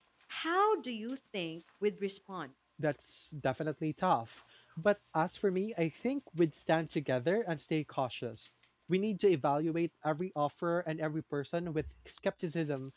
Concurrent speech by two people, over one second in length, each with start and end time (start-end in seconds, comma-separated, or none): none